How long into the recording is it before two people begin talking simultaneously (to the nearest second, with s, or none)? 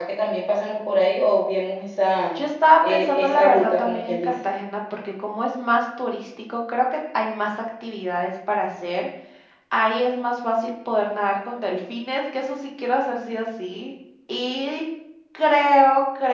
3 s